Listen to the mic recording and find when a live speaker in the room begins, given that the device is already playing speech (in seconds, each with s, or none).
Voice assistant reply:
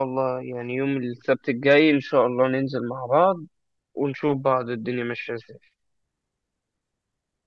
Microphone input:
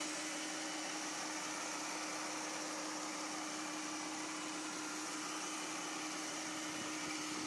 none